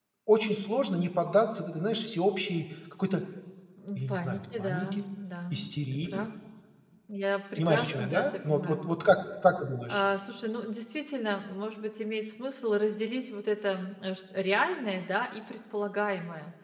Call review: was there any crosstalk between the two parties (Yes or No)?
Yes